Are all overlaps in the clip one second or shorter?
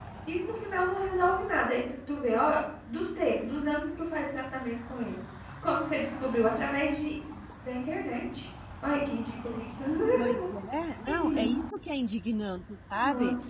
Yes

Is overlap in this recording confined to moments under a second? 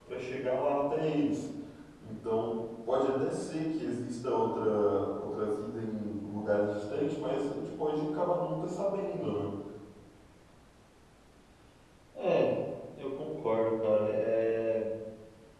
Yes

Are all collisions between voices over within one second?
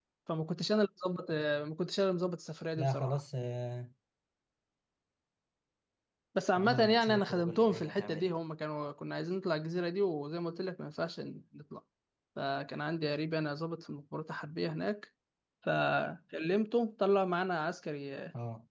No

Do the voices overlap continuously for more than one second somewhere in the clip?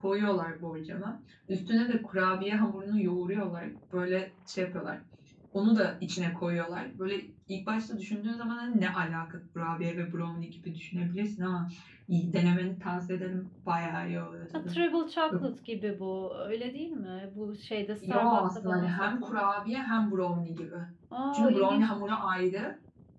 Yes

